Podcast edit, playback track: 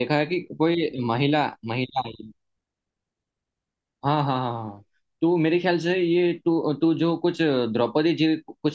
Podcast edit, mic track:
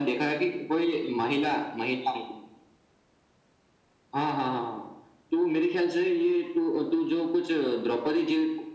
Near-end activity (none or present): none